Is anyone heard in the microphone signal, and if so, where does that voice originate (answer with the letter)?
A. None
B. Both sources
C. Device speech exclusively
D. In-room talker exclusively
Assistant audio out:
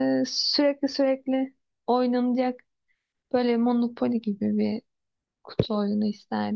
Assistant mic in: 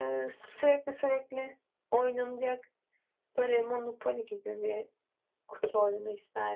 B